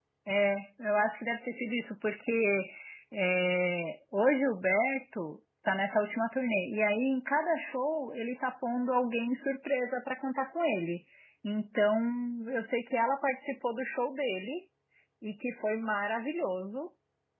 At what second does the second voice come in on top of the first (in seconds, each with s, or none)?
none